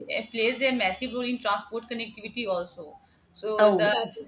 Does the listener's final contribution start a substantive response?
No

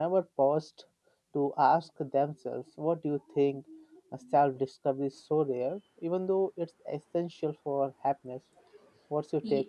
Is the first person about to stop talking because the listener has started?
Yes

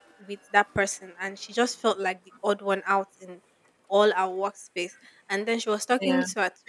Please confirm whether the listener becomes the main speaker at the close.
No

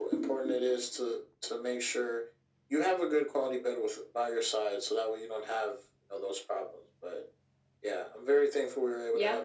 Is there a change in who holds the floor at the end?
Yes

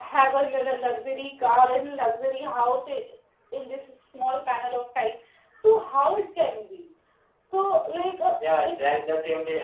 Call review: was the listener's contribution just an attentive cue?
No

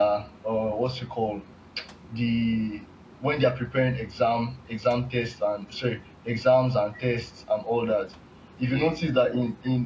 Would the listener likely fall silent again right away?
Yes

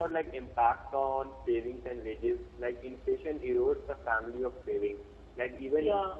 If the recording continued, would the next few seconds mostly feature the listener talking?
No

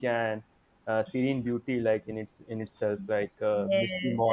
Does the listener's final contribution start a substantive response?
Yes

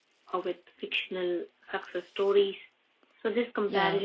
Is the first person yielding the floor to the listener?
No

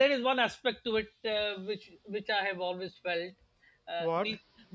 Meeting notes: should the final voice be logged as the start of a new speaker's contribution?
No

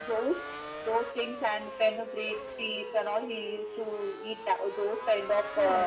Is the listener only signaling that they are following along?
Yes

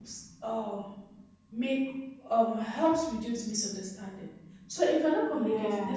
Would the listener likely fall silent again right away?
Yes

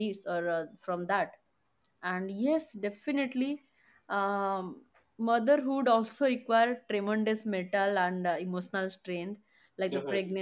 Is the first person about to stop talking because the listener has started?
No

